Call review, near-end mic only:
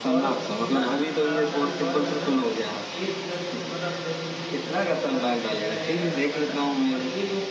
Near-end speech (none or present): present